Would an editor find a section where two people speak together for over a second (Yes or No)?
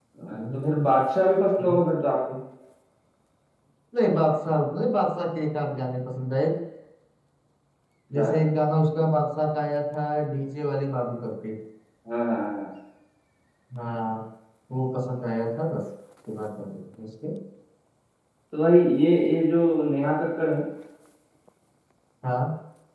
No